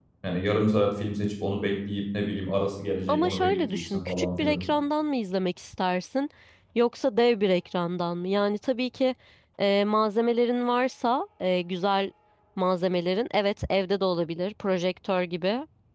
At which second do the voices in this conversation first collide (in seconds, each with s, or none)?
3.1 s